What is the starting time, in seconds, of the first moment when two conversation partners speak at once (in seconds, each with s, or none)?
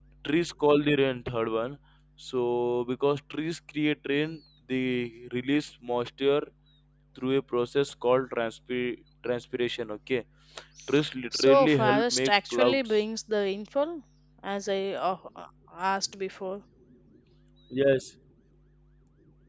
11.3 s